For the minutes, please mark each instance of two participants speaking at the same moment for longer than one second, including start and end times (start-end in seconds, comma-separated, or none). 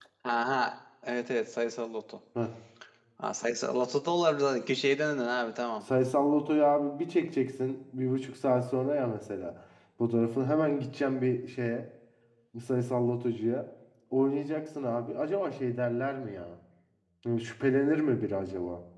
none